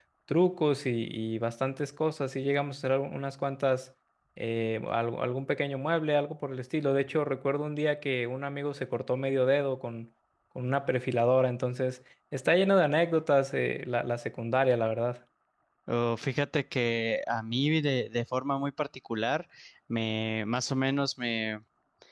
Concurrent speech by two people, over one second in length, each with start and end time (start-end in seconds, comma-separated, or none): none